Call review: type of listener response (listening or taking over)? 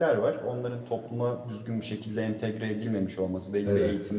listening